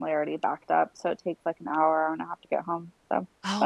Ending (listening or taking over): taking over